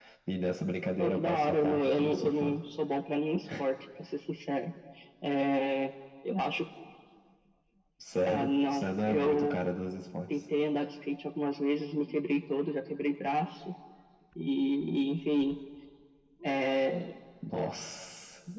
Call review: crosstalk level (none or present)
present